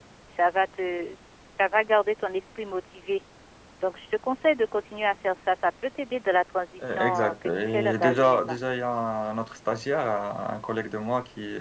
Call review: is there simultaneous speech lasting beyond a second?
Yes, from 6.8 s

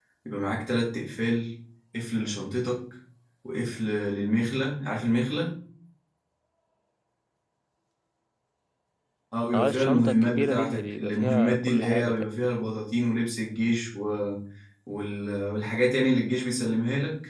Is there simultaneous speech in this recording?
Yes, from 9.5 s

